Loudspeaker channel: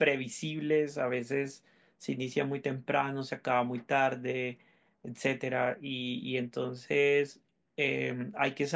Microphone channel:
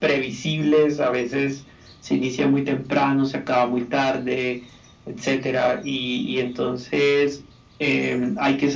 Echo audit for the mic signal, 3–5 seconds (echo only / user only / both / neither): echo only